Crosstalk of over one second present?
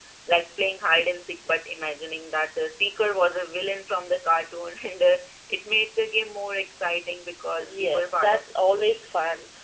Yes, from 7.5 s

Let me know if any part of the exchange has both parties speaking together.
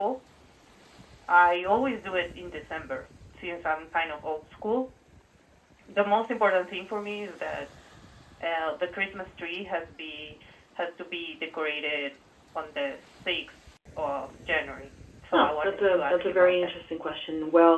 Yes, from 15.3 s

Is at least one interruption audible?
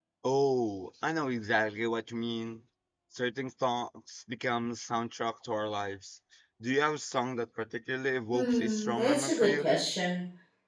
Yes, from 8.3 s

